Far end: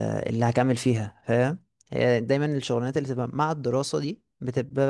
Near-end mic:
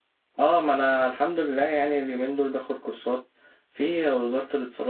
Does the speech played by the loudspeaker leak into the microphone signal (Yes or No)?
No